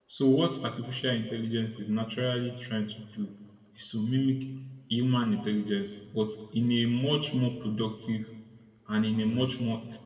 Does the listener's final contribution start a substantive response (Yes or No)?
No